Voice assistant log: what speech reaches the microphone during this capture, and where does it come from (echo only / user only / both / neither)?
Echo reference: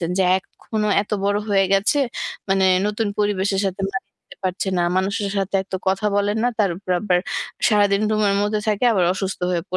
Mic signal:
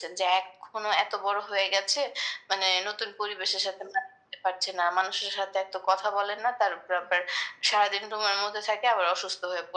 echo only